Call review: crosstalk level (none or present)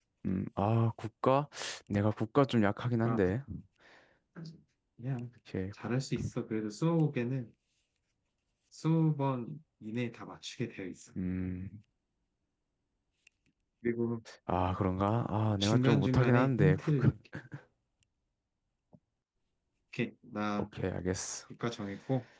present